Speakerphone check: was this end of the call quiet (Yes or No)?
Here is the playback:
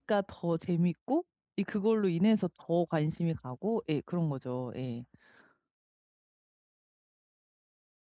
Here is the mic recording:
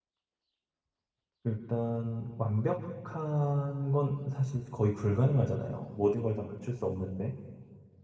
No